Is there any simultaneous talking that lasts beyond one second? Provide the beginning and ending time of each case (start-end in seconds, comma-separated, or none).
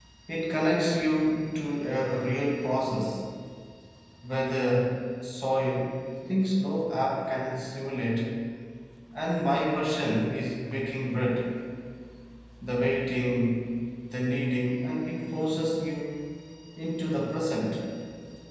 none